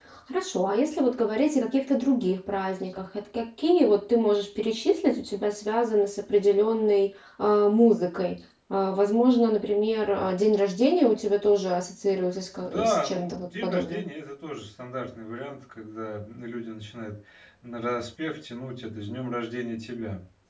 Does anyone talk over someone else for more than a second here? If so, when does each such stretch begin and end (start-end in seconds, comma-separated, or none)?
12.6-14.0